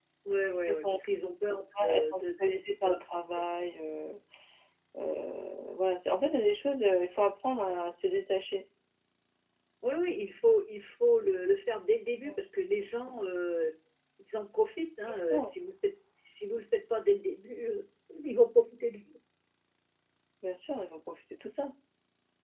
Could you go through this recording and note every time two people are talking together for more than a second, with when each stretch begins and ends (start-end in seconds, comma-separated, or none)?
1.8-3.2